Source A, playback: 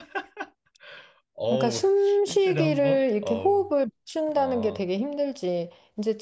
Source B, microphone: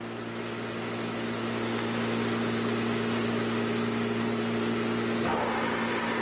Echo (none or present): none